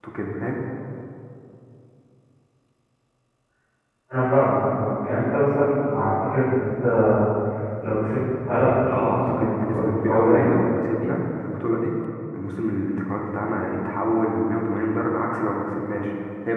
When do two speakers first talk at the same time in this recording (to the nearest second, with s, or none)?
9 s